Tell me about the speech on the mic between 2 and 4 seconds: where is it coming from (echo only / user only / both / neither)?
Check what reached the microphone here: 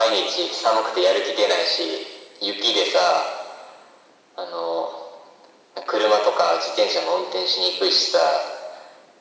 echo only